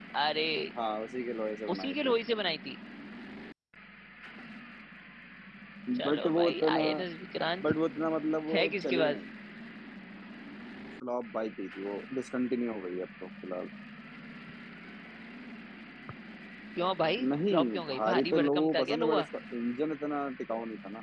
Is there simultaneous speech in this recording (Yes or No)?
Yes